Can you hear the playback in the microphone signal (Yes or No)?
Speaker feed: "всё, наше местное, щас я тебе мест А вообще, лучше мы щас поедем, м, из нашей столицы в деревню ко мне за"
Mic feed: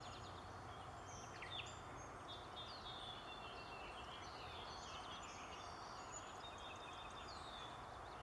No